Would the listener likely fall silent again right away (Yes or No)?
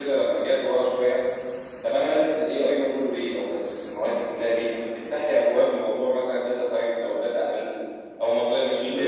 Yes